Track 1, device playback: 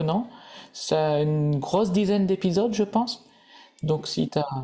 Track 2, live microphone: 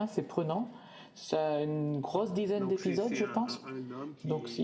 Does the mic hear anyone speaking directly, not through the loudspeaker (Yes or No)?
Yes